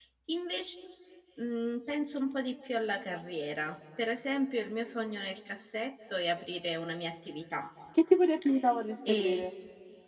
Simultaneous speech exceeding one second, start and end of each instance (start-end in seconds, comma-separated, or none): none